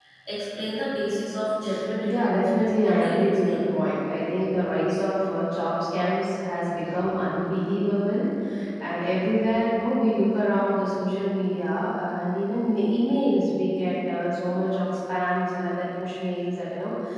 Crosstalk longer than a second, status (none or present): present